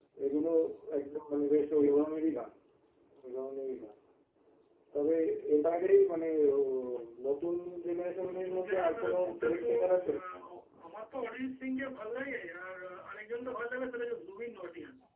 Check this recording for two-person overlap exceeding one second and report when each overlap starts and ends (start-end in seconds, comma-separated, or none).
8.3-10.1